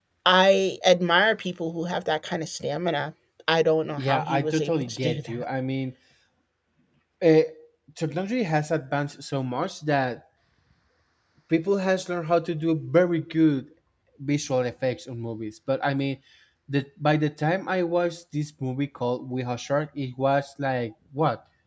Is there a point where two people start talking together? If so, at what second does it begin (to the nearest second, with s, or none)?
4 s